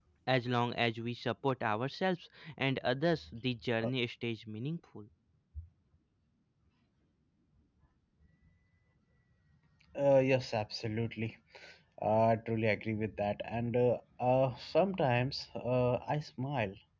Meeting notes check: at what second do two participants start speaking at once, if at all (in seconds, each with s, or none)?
none